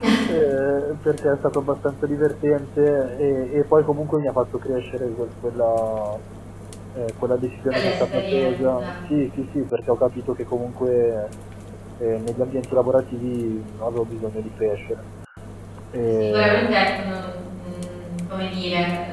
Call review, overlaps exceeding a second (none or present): present